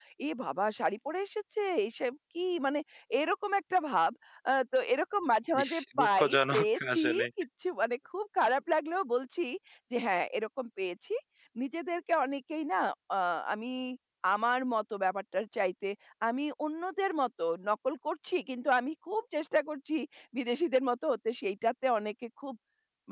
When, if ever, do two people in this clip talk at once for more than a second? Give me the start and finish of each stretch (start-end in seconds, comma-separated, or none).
5.6-7.2